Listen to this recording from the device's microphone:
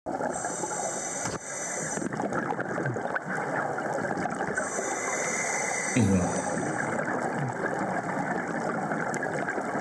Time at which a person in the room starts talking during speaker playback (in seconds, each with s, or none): 5.9 s